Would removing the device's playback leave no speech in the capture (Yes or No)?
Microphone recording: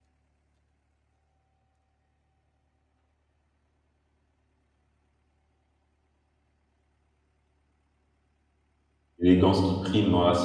No